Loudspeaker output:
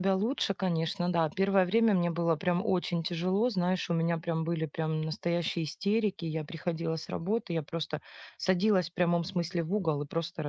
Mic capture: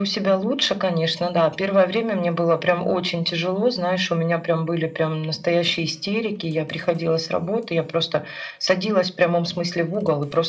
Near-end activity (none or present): none